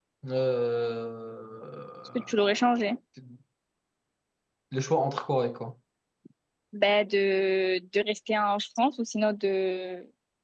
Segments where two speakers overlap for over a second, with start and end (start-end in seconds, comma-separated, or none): none